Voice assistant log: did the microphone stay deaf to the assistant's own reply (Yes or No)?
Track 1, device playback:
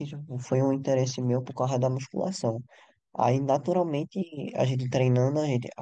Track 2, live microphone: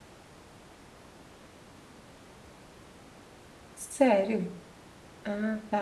Yes